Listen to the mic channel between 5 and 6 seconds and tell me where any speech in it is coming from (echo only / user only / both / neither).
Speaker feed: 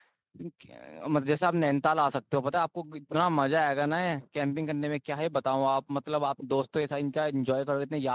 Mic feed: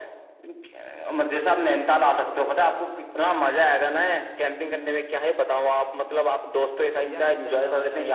echo only